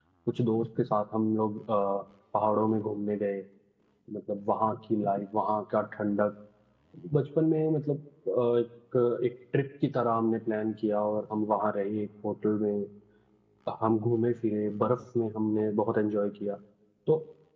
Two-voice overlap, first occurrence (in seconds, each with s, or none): none